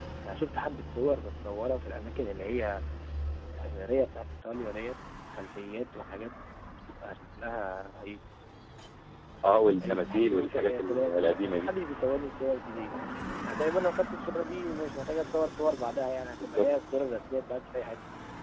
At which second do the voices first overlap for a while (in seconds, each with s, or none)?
9.8 s